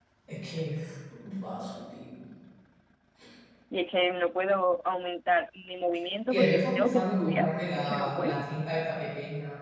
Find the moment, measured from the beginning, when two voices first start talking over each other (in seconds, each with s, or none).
6.3 s